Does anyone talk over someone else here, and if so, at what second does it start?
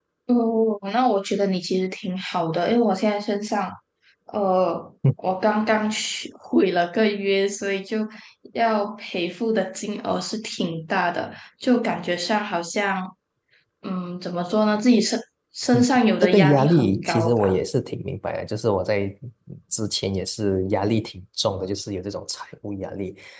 16.2 s

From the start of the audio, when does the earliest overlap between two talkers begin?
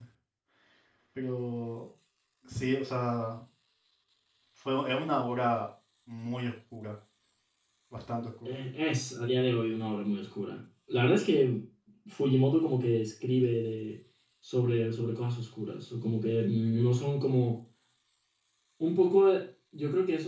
none

